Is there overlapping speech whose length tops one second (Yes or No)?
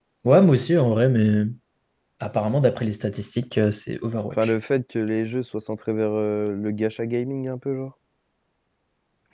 No